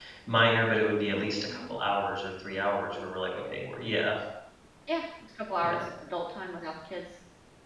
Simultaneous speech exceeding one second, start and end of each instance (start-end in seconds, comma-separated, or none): none